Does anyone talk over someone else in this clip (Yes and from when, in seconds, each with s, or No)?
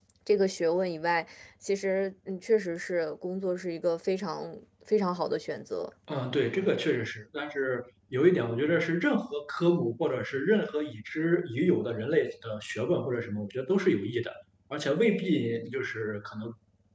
No